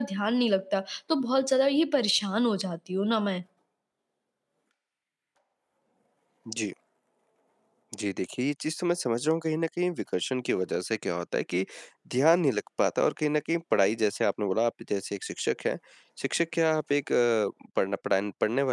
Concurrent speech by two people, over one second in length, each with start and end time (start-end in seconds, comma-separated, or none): none